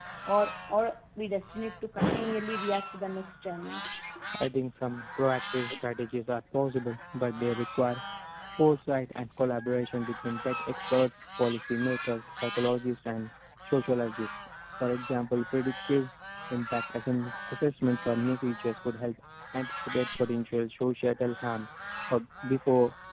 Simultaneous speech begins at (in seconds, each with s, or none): none